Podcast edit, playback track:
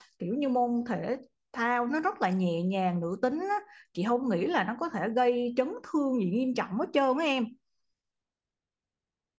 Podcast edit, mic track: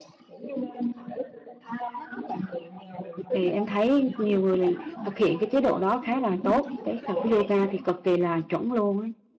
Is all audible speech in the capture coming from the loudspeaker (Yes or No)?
No